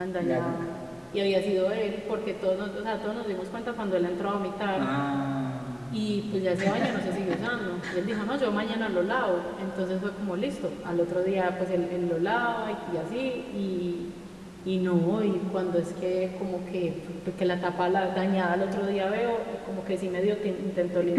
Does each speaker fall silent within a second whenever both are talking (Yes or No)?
Yes